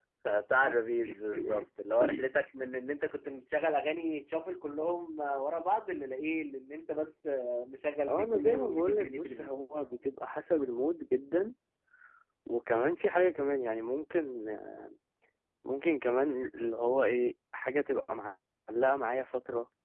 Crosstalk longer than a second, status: present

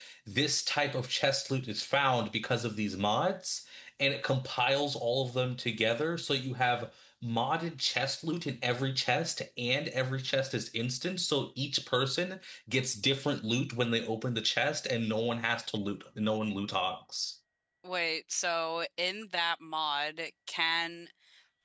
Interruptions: none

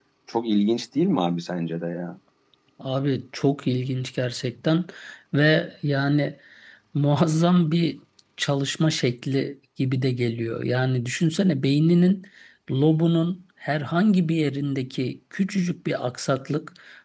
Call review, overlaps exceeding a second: none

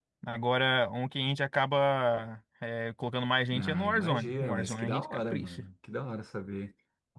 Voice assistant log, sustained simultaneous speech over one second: present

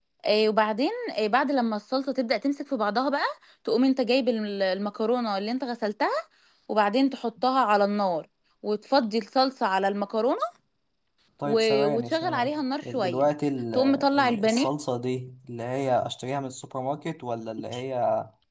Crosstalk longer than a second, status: present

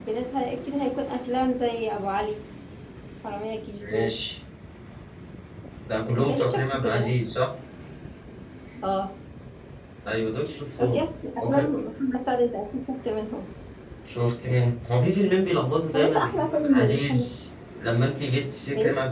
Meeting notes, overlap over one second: present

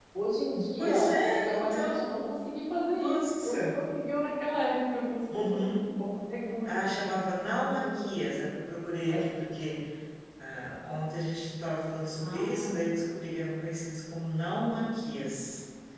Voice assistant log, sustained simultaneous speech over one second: present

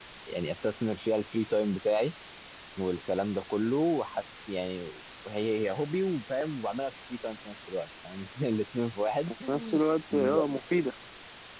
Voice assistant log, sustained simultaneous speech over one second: none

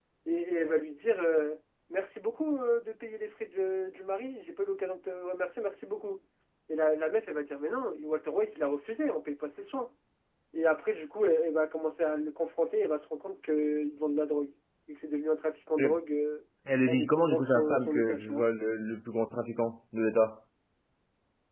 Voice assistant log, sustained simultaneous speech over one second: present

